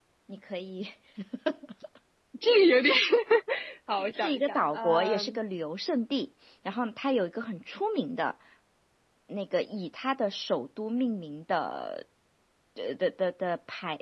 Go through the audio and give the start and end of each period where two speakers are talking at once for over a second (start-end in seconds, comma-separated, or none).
4.2-5.4